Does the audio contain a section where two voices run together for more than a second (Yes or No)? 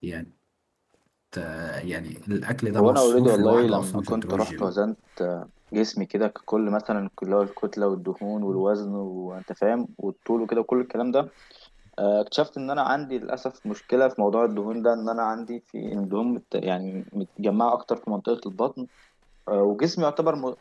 Yes